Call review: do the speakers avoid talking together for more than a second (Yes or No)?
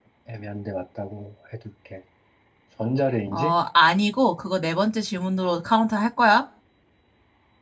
Yes